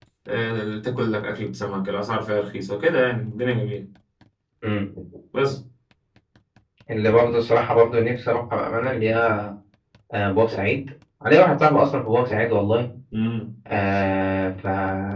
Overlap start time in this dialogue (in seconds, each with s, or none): none